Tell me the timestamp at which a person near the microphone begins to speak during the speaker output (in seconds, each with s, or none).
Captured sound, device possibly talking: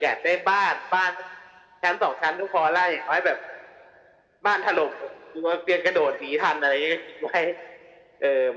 none